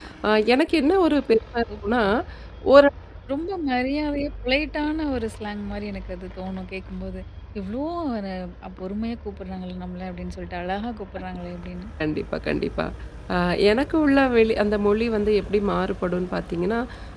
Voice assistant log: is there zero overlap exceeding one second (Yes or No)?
Yes